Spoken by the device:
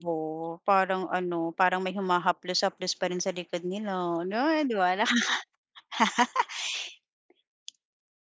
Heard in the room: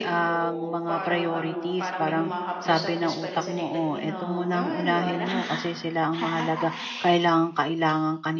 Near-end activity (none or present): present